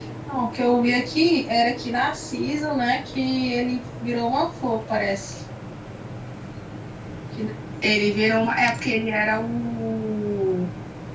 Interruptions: none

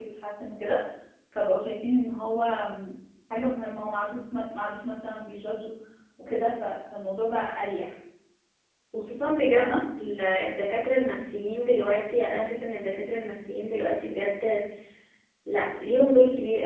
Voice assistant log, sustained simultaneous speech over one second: none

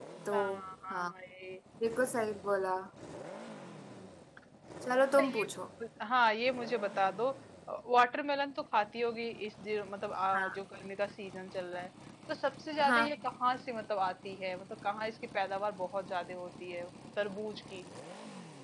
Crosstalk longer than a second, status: none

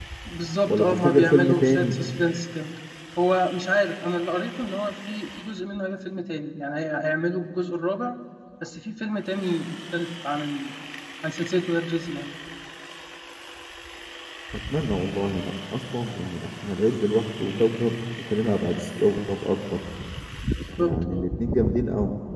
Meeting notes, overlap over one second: present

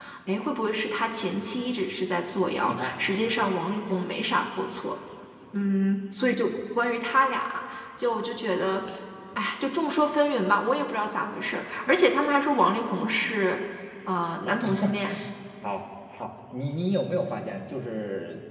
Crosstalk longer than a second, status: none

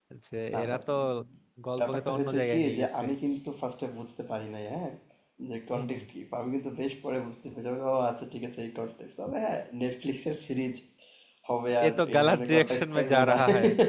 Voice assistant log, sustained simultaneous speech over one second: present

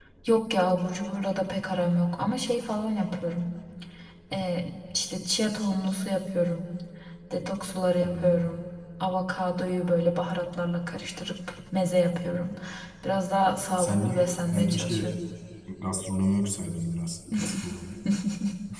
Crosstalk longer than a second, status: present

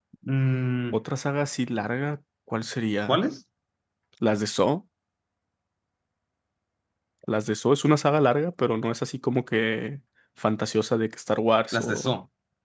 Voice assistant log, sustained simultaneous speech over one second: none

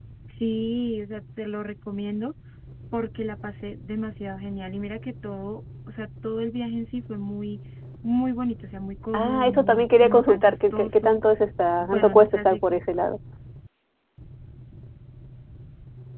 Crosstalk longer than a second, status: present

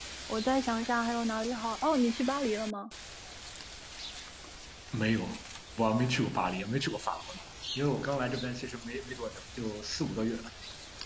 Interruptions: none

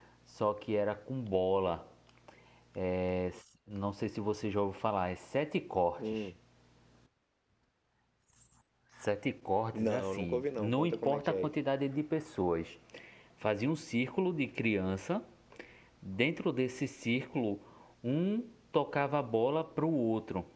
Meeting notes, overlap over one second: present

